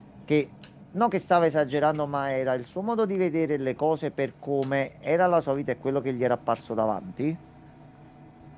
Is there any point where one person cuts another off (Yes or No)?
No